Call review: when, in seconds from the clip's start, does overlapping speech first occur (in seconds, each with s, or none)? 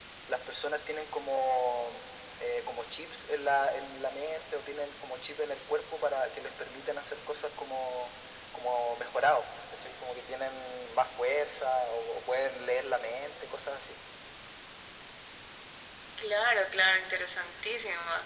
none